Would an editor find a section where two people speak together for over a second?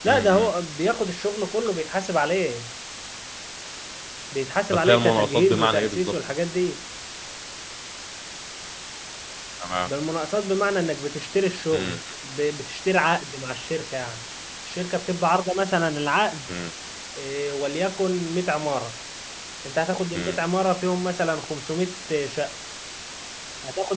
Yes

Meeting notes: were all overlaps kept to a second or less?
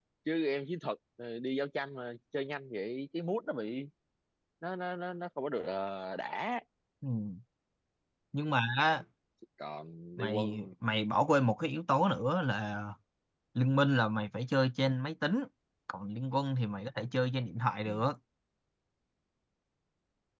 Yes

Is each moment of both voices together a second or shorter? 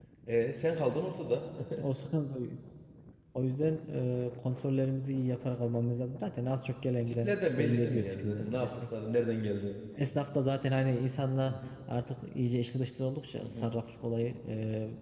No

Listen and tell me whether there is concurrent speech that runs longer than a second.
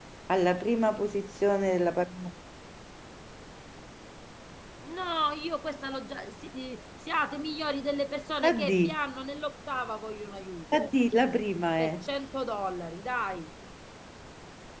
No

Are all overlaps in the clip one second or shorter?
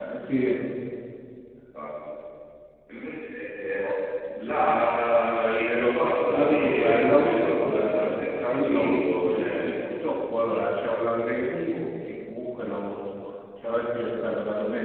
No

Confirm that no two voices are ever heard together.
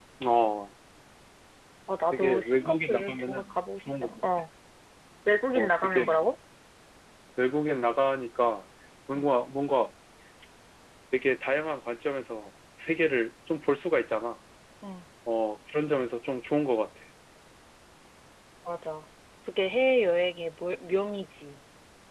No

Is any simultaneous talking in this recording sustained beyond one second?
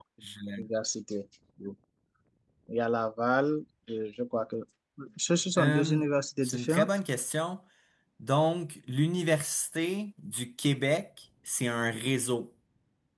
No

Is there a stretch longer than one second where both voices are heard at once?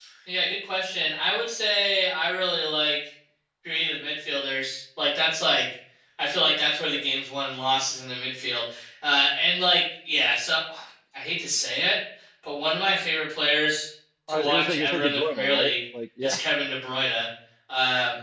Yes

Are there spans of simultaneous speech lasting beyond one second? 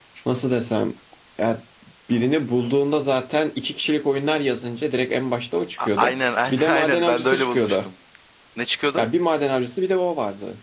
Yes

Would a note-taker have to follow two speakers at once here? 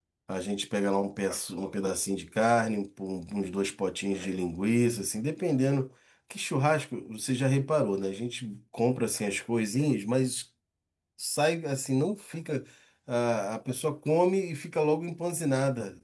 No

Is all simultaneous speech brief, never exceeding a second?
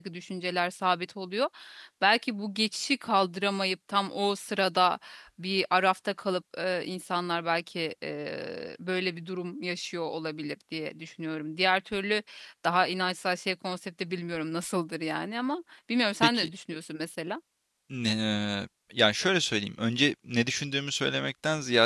Yes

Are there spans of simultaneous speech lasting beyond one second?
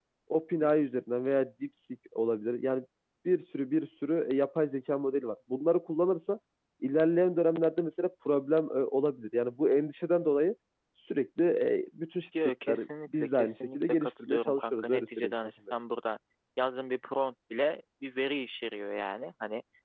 Yes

